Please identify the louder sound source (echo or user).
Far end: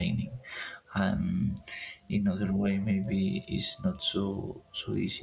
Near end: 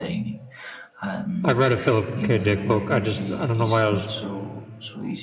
user